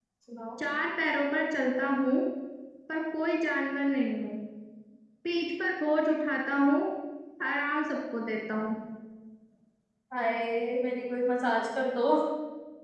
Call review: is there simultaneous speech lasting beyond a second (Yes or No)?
No